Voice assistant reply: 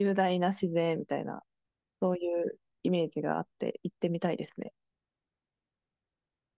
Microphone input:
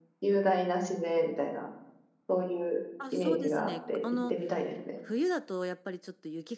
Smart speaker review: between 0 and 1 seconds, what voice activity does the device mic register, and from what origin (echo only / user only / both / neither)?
echo only